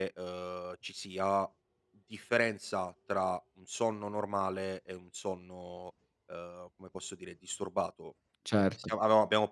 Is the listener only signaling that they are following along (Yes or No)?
Yes